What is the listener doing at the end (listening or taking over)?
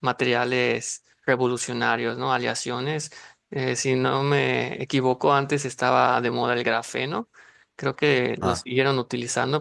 listening